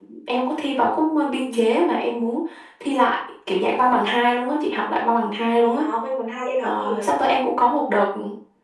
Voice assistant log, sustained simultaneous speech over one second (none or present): none